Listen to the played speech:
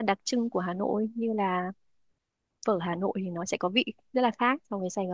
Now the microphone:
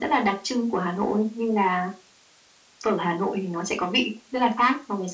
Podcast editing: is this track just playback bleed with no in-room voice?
Yes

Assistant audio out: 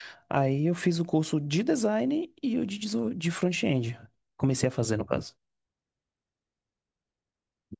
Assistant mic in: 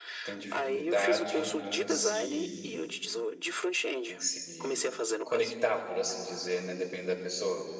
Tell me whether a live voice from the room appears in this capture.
Yes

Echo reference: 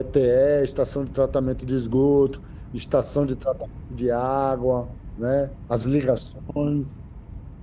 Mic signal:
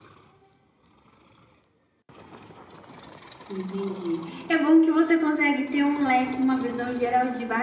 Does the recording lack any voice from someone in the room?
No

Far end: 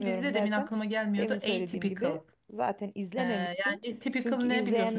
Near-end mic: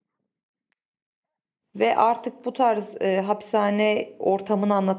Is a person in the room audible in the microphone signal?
Yes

